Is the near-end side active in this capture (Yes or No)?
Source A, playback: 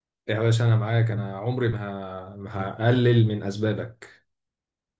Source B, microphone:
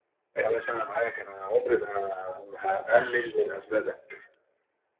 No